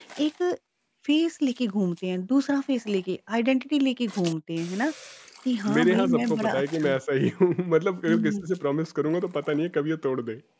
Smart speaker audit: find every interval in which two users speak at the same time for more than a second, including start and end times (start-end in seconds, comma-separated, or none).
5.8-7.0